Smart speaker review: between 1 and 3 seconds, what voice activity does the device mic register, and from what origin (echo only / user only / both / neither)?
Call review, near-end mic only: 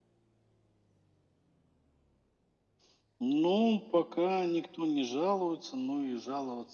neither